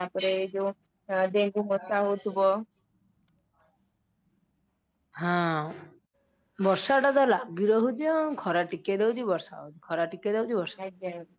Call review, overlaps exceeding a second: none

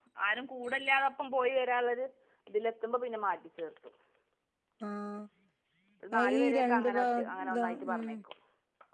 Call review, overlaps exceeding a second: present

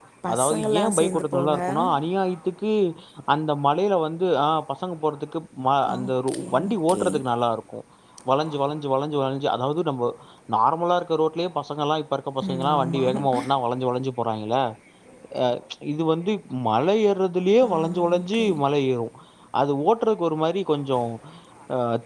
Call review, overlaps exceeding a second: present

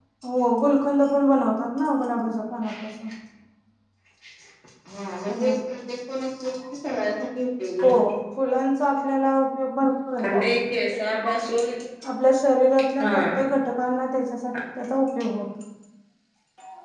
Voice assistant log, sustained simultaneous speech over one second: none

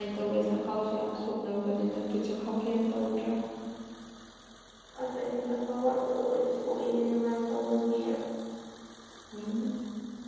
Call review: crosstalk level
none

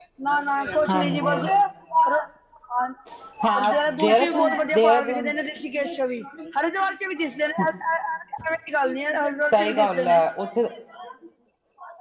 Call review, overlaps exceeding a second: present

